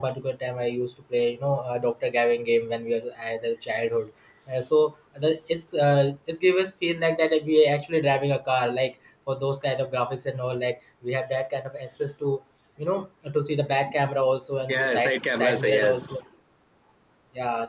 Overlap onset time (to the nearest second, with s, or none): 15 s